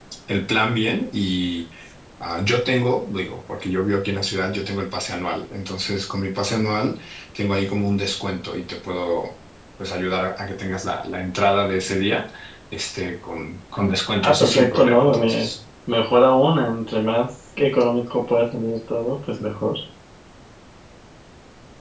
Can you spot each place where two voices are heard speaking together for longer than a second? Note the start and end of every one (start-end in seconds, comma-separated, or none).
14.2-15.5